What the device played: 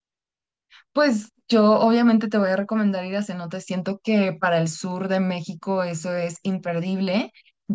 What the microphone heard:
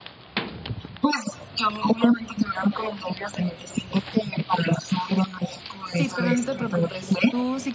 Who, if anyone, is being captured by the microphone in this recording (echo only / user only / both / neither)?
both